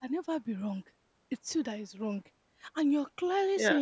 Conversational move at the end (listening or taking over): listening